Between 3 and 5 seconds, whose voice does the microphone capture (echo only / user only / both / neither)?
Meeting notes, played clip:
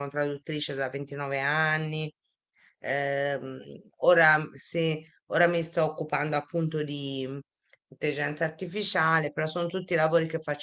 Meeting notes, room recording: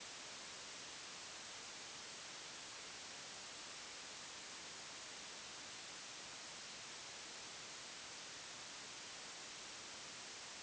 neither